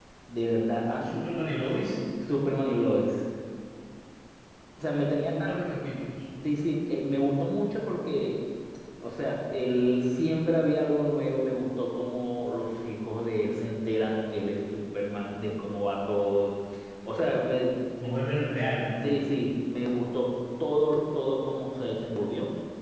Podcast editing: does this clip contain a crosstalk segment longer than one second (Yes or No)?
No